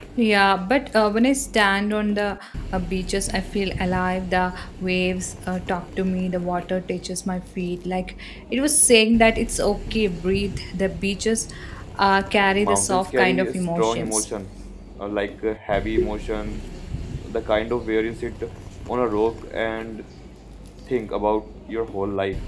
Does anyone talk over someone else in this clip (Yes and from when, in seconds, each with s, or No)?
Yes, from 12.6 s